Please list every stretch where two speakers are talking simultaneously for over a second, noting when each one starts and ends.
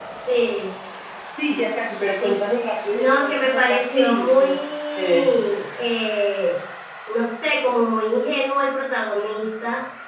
2.9-4.5

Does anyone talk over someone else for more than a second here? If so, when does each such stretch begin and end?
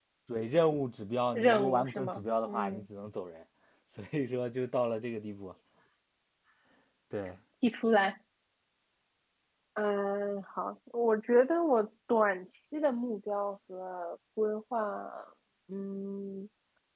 1.3-2.9

